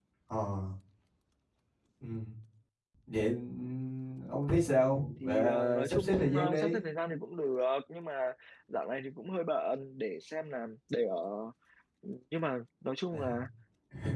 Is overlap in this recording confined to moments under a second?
No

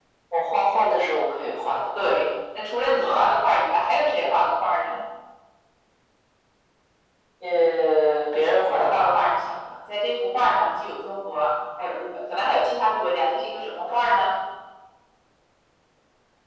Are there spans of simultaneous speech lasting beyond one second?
No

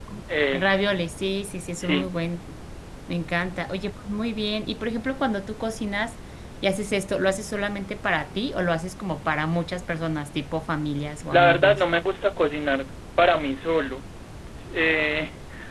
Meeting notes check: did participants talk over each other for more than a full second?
No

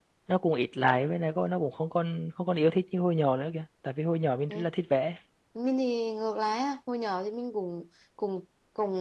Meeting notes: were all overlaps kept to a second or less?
Yes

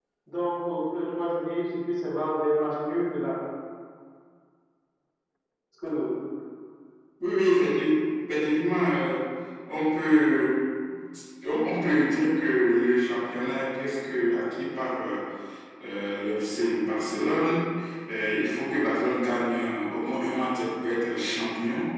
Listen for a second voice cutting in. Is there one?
No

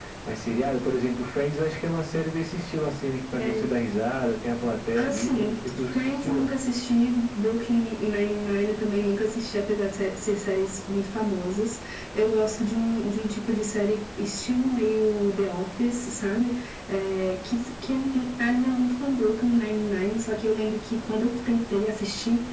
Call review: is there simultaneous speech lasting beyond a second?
Yes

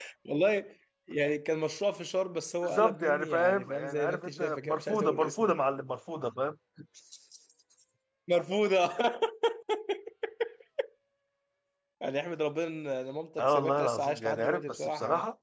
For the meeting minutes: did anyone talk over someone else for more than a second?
Yes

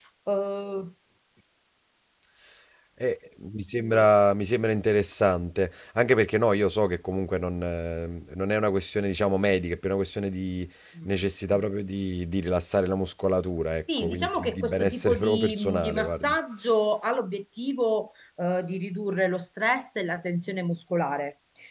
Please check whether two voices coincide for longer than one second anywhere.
Yes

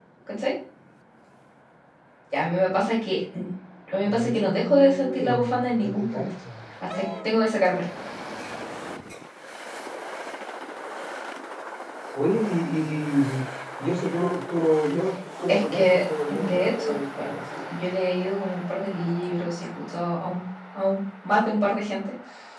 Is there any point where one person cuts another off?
Yes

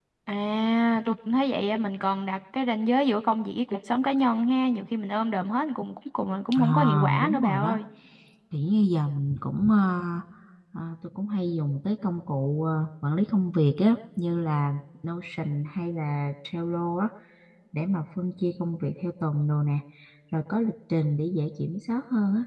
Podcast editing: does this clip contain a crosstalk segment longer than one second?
Yes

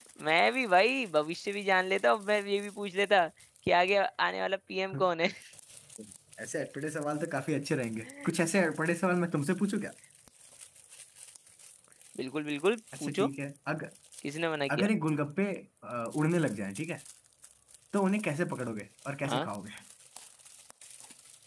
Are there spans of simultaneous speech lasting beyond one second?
No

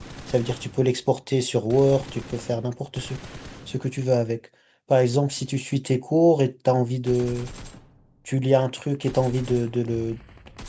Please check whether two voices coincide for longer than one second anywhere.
No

